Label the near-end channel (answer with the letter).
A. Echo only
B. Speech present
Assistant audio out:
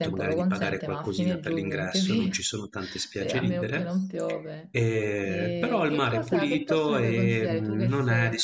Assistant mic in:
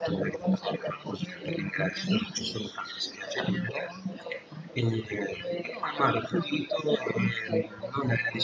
A